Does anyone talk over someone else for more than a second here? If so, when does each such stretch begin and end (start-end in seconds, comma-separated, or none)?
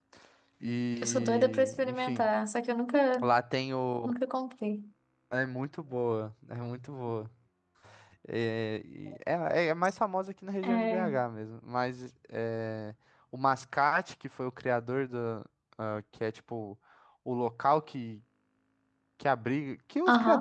1.0-2.3